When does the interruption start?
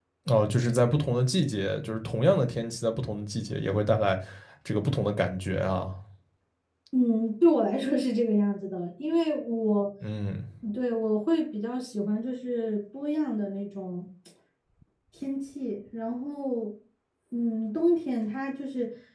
none

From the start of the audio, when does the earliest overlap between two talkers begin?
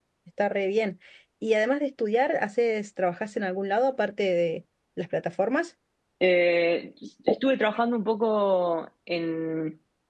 none

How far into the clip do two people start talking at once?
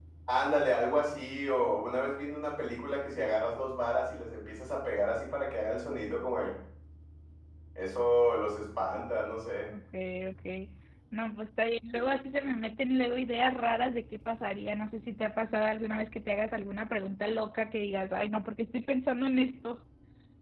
none

